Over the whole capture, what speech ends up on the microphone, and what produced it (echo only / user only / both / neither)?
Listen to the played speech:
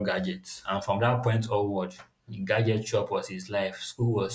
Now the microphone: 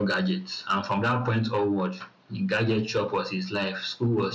echo only